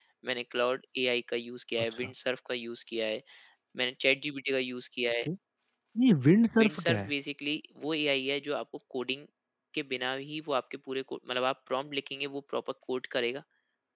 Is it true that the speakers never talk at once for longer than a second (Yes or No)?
Yes